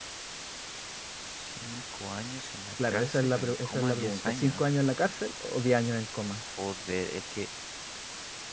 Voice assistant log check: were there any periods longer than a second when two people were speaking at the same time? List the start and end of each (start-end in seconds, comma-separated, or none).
2.9-4.7